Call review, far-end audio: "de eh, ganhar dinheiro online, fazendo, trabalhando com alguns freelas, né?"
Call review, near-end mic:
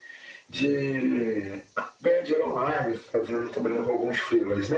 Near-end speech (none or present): none